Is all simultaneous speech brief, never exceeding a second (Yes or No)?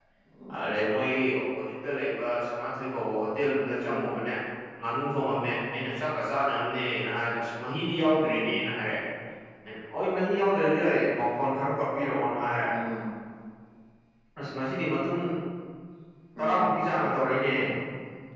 Yes